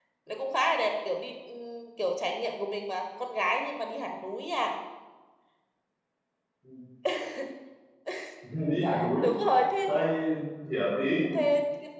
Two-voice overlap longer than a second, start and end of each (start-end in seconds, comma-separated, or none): none